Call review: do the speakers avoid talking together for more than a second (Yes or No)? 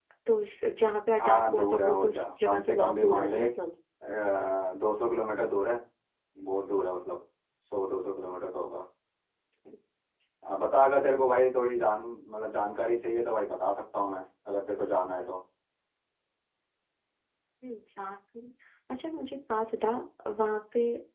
No